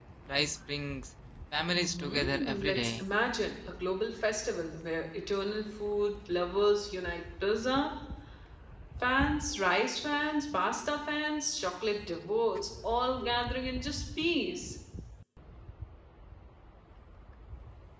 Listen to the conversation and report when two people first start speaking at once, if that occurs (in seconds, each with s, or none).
1.7 s